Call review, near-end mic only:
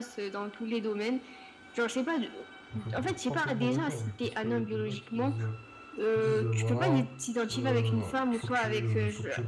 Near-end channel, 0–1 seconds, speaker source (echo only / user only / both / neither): echo only